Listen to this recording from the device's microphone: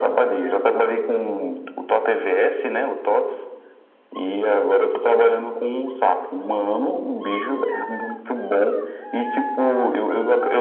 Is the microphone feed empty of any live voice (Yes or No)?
Yes